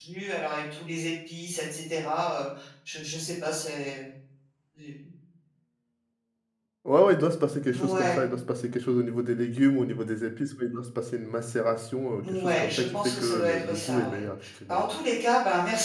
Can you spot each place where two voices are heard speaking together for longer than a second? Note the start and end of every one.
12.2-14.2

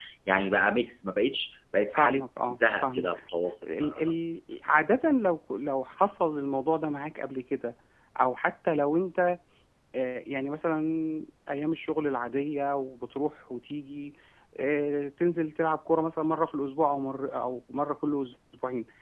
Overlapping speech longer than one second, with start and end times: 2.0-3.2

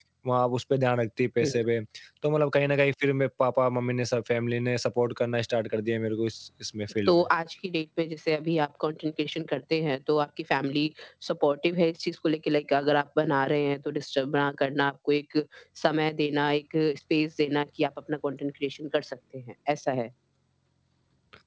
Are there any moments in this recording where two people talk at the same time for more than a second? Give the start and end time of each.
none

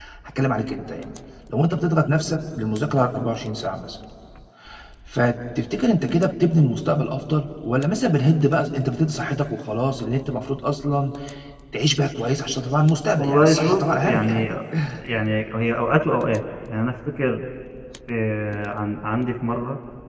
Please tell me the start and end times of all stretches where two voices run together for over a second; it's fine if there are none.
13.2-14.5

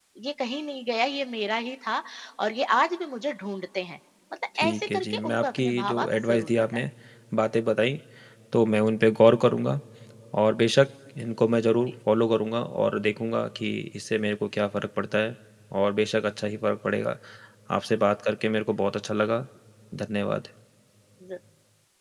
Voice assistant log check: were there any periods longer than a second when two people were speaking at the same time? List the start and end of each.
4.6-6.8

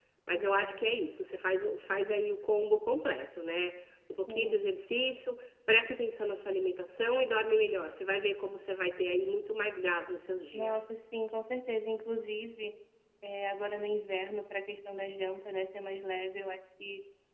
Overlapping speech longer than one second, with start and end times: none

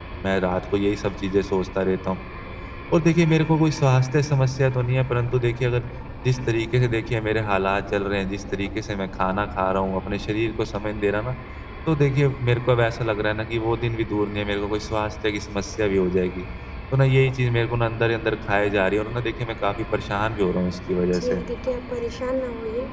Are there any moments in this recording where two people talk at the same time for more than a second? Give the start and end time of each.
none

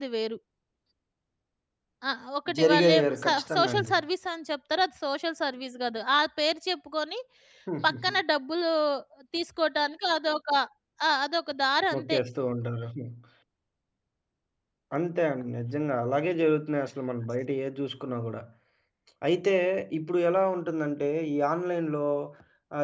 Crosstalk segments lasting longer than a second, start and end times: 2.6-3.9

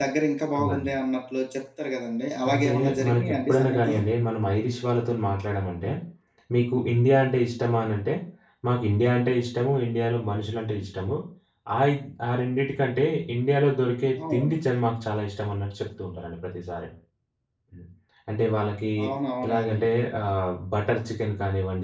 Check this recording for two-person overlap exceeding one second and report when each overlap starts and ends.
2.5-4.0

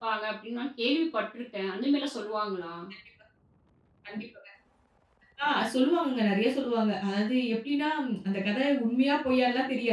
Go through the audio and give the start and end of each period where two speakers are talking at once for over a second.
none

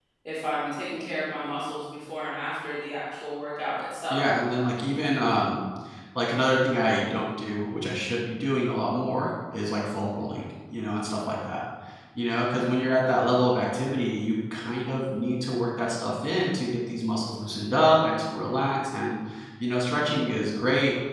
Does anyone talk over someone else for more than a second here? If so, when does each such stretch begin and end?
none

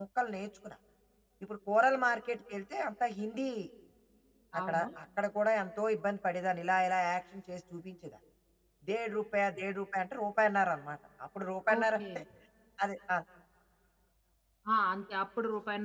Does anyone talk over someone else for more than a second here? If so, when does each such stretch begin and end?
none

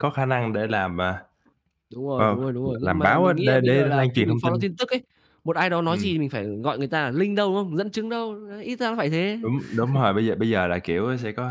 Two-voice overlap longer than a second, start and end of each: 2.2-4.6

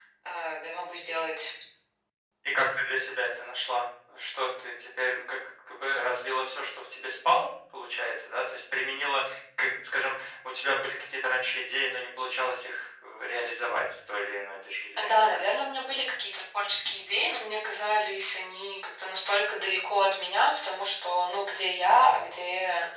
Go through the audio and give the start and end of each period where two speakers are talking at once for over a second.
none

